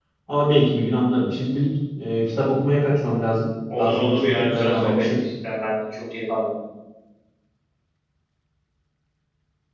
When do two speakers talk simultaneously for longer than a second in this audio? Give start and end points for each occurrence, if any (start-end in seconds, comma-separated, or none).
3.8-5.2